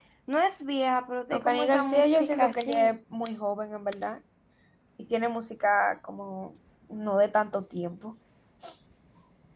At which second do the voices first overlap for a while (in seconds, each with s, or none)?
1.3 s